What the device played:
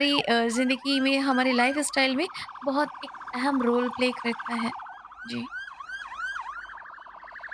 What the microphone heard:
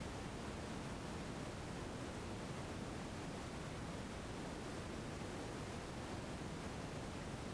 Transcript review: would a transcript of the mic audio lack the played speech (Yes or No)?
Yes